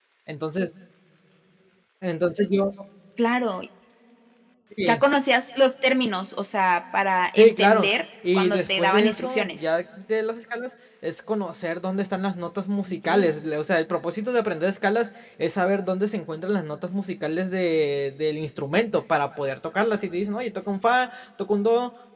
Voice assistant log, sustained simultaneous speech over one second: present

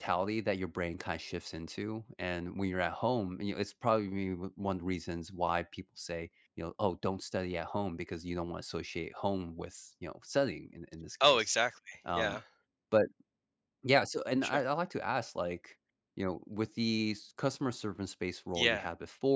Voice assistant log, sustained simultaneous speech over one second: none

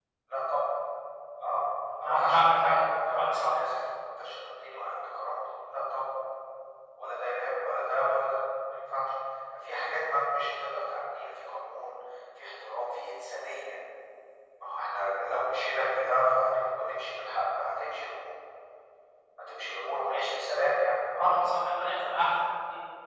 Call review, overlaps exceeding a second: present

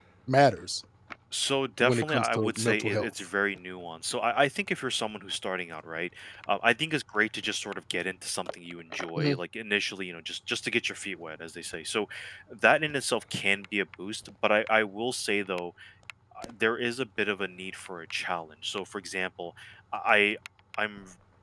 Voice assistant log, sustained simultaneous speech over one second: present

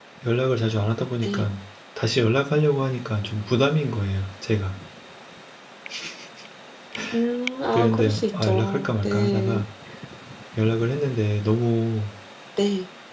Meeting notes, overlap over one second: present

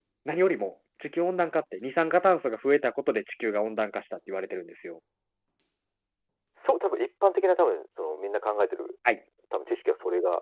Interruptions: none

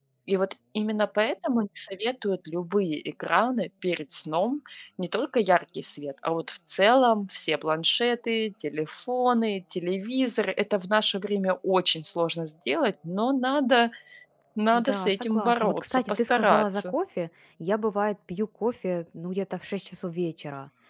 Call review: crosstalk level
present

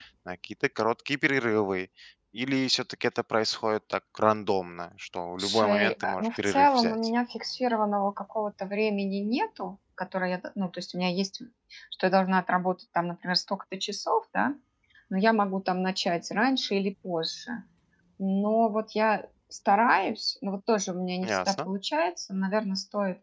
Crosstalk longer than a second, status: present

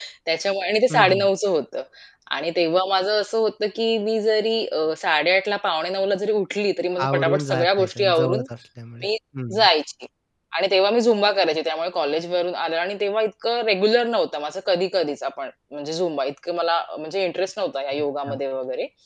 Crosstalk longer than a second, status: present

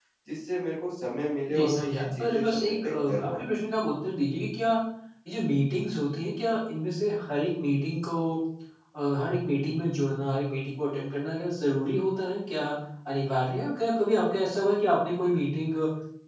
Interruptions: present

